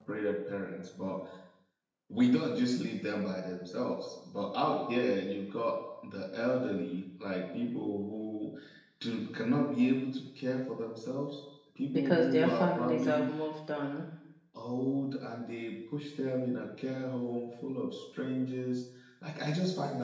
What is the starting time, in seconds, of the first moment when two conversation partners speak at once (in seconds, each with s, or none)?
11.8 s